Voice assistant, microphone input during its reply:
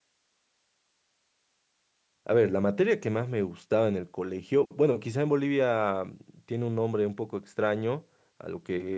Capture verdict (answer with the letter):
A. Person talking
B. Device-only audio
A